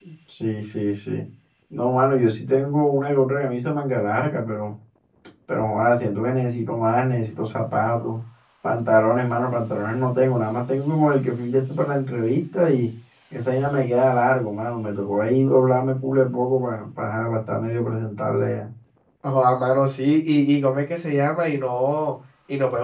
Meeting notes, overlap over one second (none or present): none